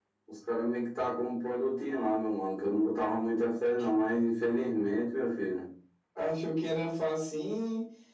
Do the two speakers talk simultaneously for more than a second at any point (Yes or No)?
No